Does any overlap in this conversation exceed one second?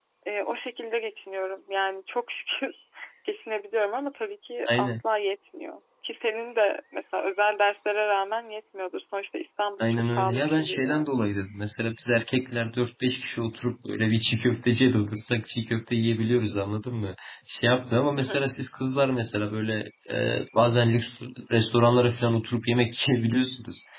Yes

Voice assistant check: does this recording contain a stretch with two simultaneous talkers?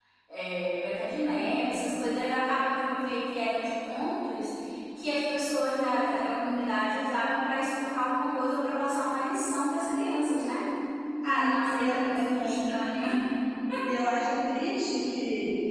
Yes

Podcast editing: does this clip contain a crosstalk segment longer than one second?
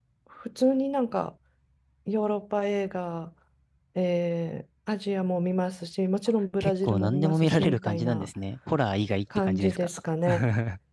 Yes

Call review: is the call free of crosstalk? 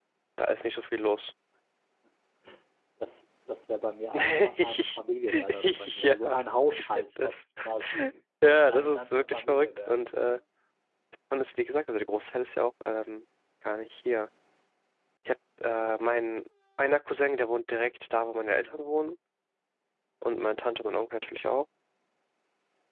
No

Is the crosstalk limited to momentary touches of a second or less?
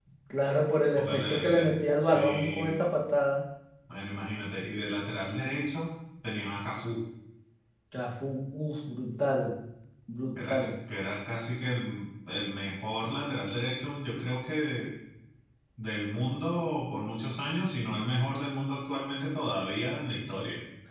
No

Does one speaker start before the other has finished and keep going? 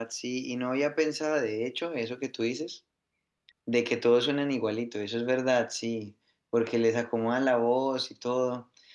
No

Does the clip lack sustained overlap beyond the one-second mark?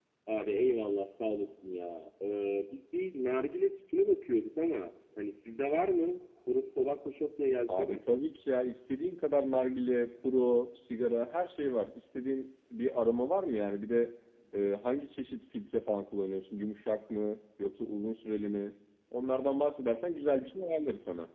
Yes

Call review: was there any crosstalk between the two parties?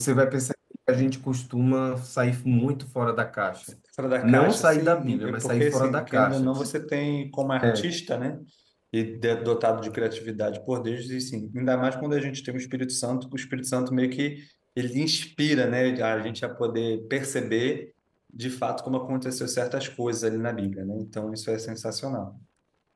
Yes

